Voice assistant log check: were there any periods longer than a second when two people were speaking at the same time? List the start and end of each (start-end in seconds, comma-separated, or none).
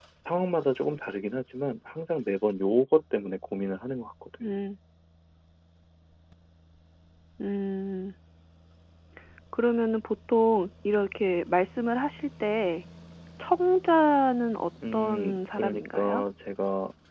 14.9-16.2